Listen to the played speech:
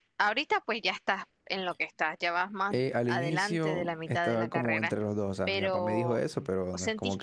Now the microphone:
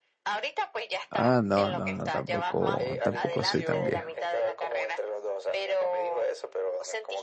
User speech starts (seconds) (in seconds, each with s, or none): 1.1 s